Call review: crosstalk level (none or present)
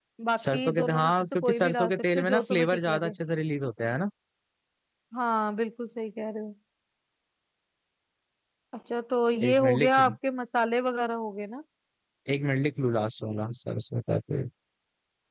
present